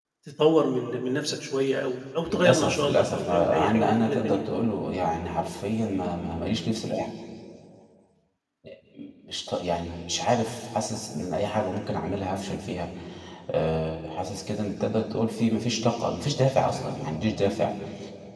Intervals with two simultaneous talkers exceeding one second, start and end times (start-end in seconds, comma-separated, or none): 2.3-4.4